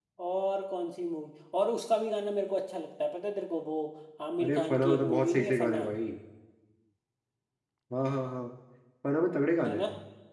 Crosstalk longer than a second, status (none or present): present